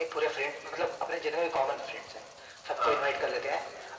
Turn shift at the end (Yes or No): No